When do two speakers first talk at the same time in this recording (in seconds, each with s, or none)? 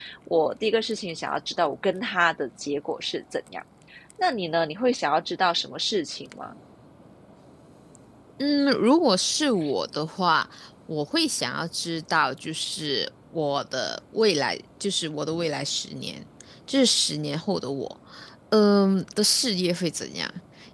none